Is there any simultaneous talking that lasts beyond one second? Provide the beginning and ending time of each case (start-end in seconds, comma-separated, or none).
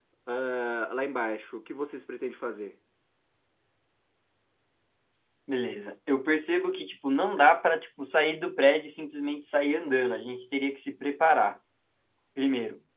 none